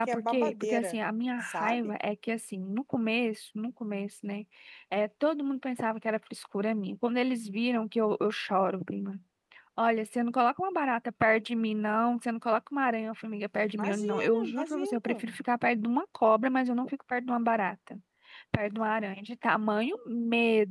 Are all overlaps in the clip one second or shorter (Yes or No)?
No